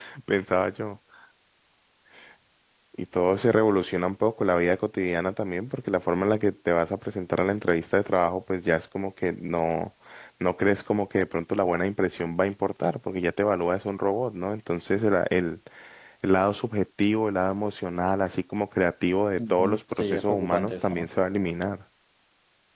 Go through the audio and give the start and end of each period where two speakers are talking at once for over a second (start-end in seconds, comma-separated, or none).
19.4-21.1